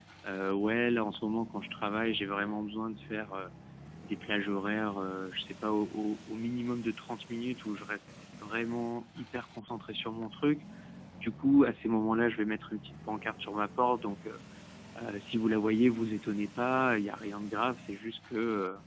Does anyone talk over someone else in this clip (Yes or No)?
No